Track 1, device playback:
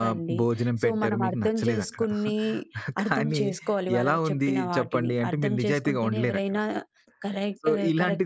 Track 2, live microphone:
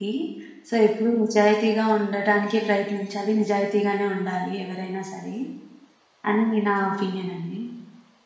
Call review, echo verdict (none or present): none